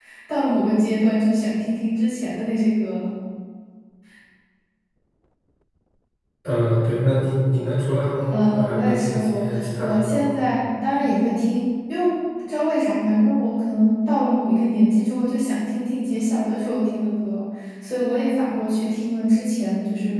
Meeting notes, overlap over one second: present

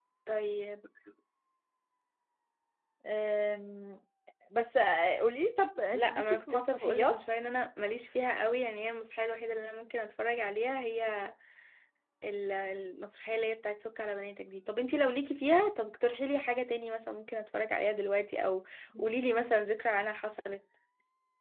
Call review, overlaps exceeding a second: present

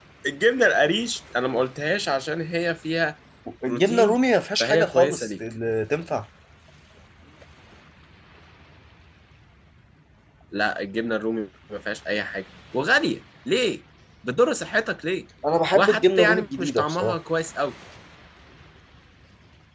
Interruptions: present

